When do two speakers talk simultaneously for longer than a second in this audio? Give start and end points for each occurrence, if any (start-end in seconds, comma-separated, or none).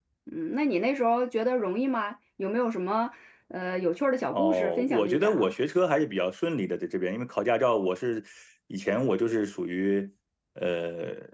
4.3-5.5